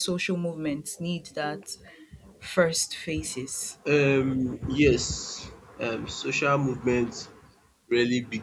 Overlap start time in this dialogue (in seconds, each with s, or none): none